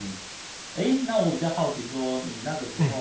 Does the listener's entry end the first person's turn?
No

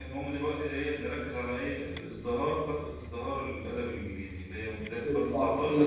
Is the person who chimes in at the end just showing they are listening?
No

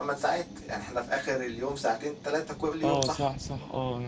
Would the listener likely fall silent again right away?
No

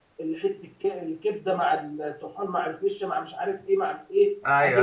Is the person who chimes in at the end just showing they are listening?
Yes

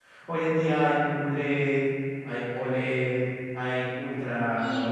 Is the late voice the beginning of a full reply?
Yes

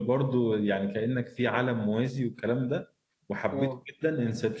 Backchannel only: Yes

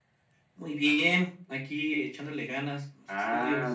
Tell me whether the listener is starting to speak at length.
Yes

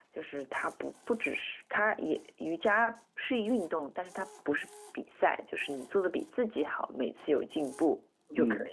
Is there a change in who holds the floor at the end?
Yes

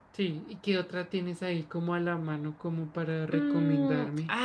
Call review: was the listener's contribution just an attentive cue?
No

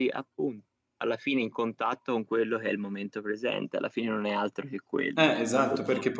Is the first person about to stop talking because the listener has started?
Yes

